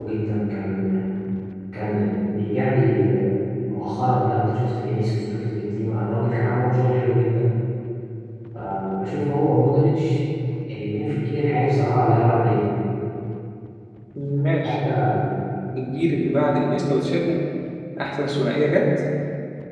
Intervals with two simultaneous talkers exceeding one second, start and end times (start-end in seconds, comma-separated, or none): none